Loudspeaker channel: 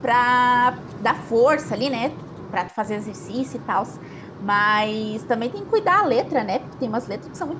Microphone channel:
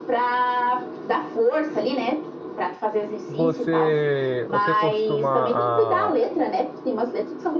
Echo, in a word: present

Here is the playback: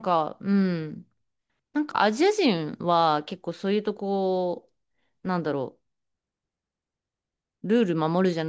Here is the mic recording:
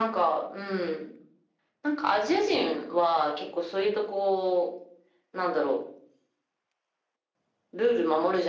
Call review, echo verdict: present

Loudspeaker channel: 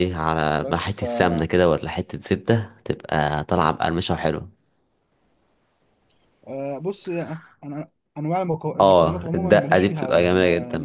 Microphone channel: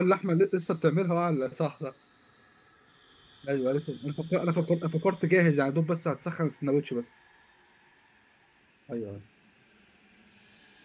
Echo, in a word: none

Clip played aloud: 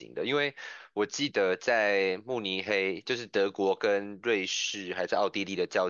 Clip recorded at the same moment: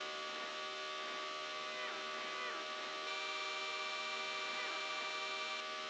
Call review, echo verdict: none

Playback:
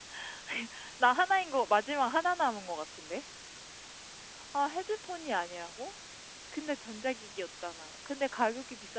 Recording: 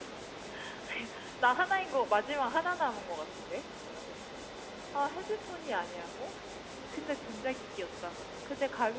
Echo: present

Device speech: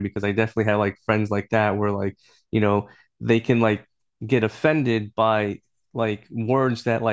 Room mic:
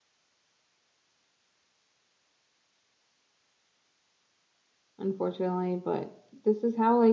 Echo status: none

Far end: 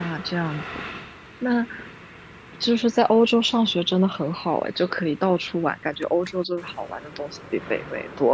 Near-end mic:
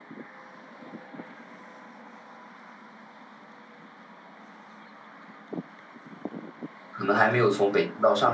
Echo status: none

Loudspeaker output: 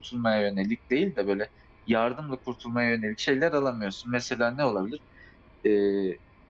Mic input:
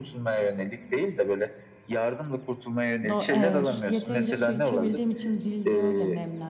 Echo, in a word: present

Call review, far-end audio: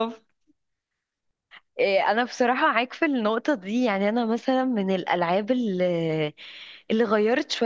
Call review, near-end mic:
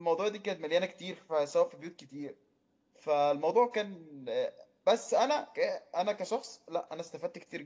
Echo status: none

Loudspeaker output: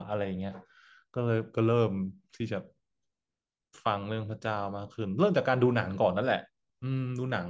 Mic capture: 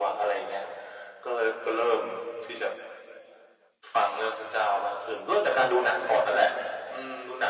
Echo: present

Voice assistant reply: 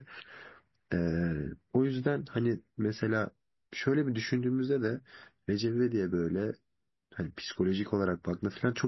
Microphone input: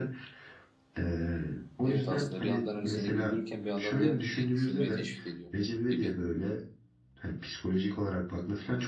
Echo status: present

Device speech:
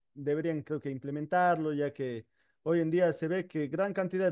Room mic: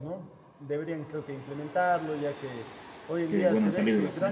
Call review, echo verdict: present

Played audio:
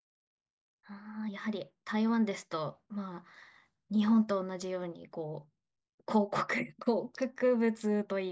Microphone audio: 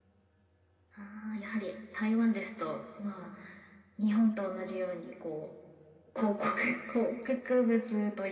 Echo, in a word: present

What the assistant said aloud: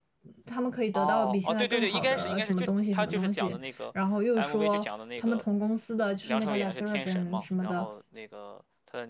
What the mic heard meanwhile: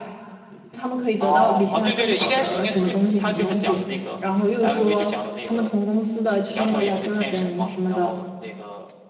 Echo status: present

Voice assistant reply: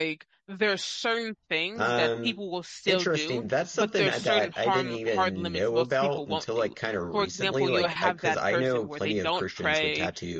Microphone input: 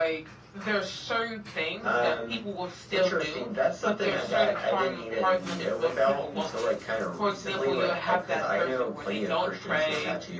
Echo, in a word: present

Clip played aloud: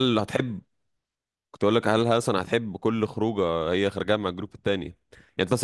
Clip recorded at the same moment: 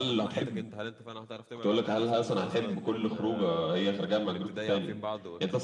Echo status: present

